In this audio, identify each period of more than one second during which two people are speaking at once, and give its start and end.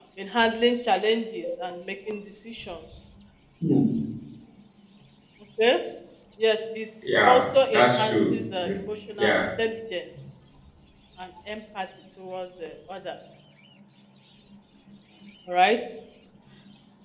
7.2-8.7

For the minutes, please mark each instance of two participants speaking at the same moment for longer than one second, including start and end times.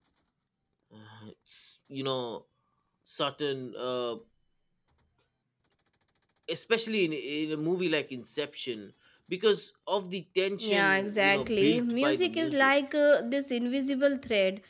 10.6-12.7

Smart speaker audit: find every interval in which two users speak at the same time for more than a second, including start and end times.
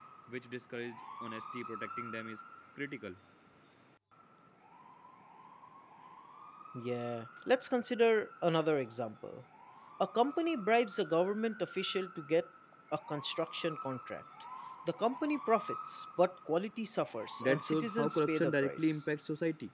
17.4-19.1

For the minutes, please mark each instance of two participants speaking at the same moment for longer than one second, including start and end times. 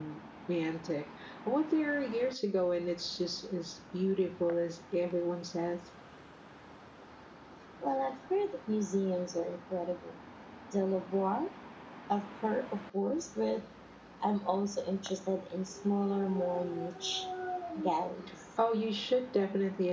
none

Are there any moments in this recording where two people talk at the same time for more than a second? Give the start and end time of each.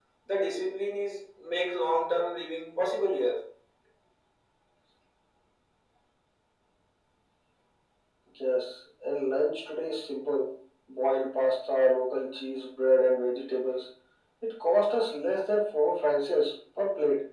none

